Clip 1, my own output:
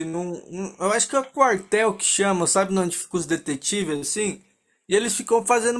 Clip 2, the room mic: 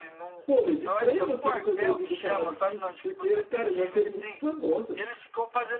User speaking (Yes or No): Yes